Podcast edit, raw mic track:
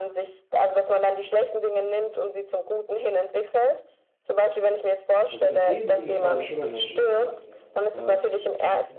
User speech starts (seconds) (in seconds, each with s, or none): 5.3 s